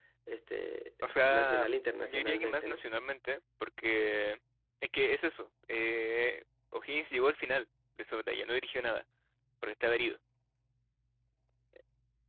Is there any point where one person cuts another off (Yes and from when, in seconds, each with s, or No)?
Yes, from 1.3 s